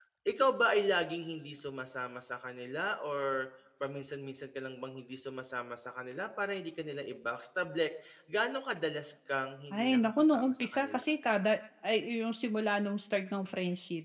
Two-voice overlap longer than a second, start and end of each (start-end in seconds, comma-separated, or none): 9.7-11.1